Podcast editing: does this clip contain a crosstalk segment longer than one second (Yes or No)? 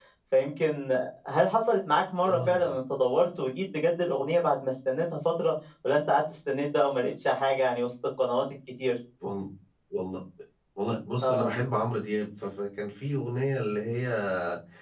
No